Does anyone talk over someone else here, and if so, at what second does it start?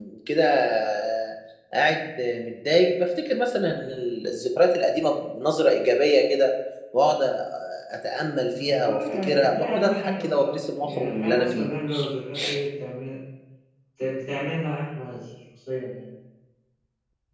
8.8 s

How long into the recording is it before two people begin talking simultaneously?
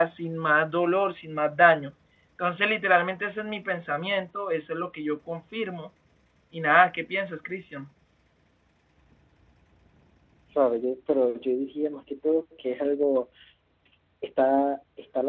none

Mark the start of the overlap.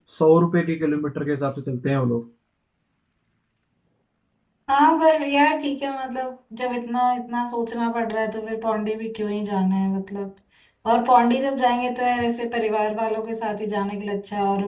none

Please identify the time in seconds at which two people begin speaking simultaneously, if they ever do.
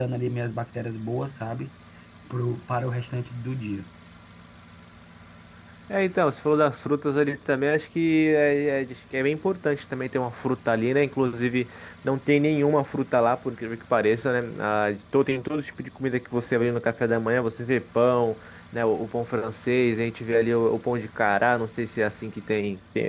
none

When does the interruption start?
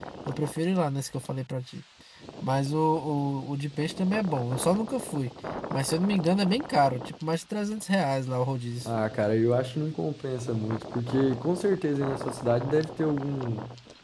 none

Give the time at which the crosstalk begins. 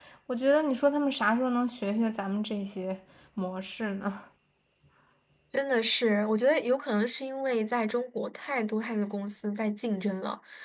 none

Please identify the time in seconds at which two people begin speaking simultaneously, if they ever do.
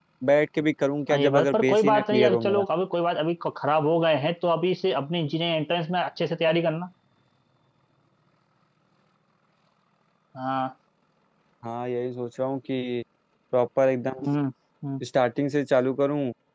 1.1 s

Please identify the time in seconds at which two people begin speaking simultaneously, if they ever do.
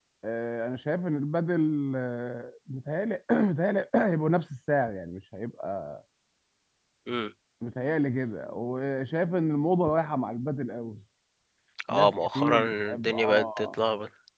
11.9 s

